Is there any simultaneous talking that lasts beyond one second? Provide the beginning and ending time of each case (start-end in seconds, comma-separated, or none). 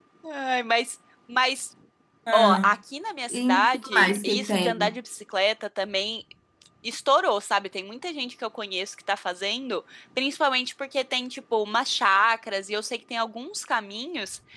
3.3-5.0